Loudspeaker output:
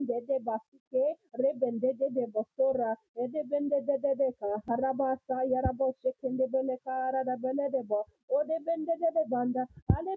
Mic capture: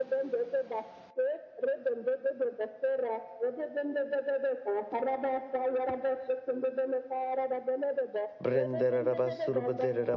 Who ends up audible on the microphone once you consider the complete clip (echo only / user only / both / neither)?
both